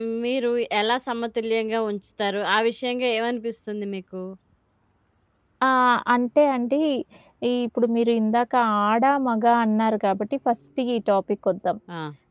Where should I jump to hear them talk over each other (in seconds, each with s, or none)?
none